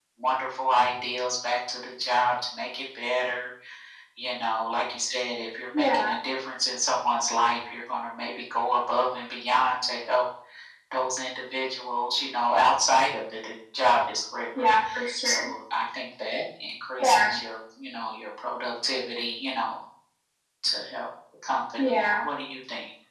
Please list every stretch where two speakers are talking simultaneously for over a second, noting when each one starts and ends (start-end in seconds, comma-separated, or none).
none